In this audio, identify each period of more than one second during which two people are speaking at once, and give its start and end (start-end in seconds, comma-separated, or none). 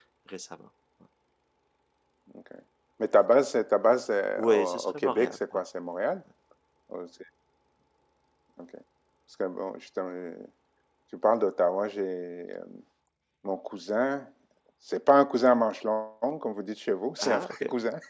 4.4-5.6